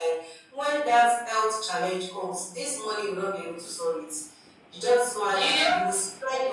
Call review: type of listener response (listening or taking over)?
listening